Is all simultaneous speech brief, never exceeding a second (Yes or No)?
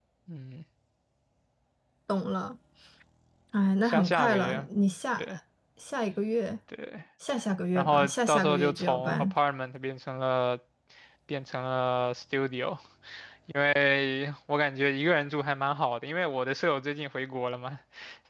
No